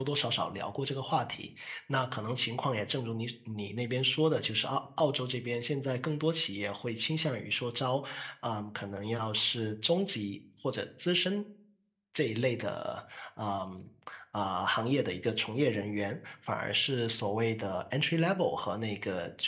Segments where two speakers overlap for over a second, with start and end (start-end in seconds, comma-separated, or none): none